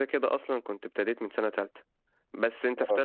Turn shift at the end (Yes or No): No